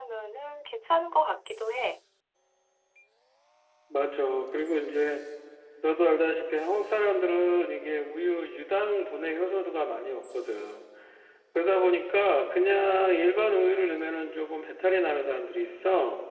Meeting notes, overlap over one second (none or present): none